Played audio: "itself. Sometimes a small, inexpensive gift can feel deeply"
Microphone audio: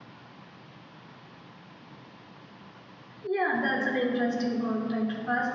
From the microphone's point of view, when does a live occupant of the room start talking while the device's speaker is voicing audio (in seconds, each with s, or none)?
3.2 s